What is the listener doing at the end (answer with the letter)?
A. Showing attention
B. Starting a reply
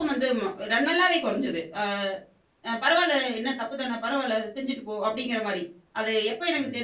A